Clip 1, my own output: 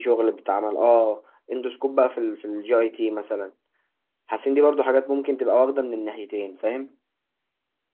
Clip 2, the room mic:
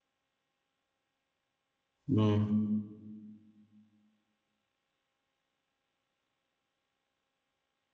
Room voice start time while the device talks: 2.1 s

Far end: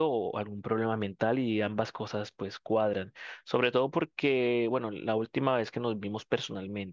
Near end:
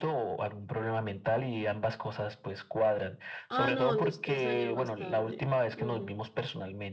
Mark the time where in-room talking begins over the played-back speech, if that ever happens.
3.5 s

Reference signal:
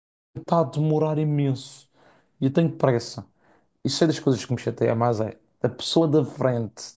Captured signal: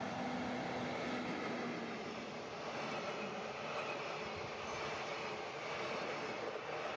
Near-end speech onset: none

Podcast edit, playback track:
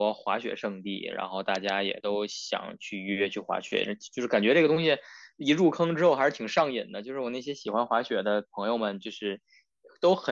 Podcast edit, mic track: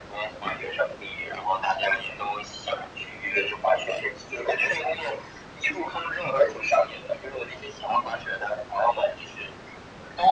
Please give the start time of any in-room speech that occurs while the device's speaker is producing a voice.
none

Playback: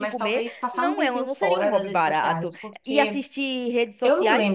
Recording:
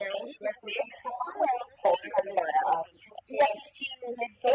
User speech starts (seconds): none

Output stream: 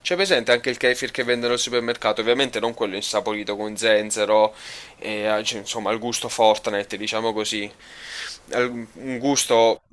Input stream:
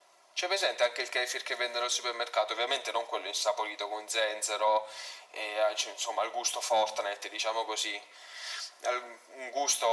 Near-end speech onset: none

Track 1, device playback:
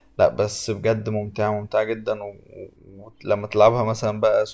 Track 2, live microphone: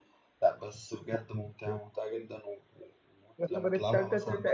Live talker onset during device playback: 3.4 s

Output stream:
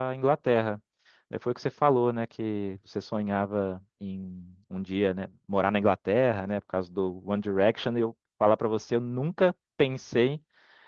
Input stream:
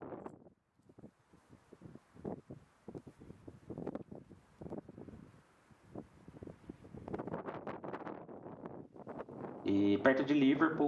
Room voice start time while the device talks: 9.6 s

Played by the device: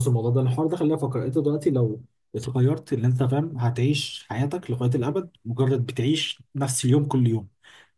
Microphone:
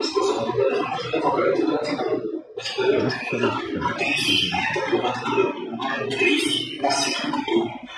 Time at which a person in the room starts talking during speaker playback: 3.0 s

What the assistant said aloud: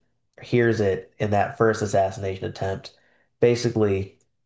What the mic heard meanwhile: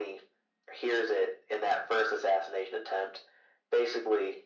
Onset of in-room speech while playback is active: none

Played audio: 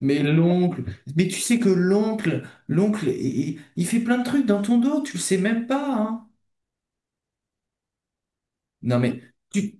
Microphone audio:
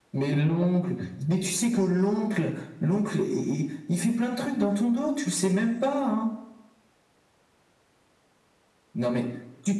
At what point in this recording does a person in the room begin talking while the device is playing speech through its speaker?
none

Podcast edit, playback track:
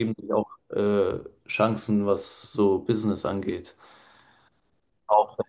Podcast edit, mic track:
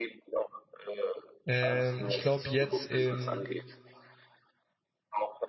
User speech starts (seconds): 1.4 s

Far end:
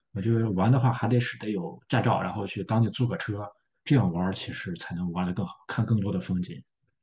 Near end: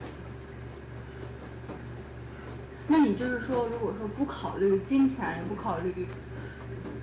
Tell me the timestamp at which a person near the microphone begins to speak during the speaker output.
2.9 s

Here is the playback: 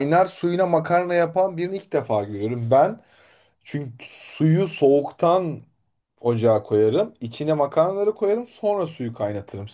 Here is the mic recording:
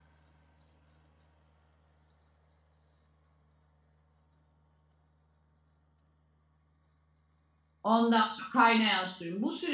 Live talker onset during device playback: 7.8 s

